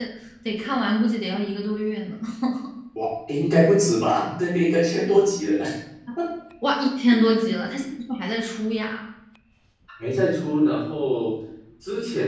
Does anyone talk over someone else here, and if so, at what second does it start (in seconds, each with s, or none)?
none